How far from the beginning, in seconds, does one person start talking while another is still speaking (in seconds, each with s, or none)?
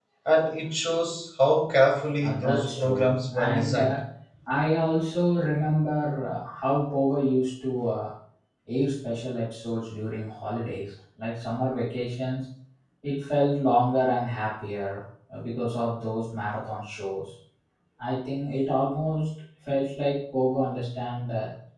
2.2 s